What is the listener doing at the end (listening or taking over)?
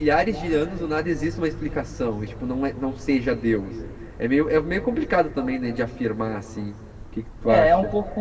taking over